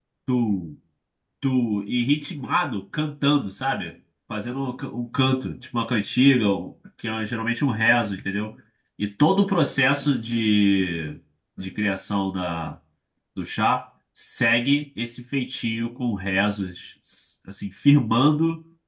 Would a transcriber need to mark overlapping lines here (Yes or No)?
No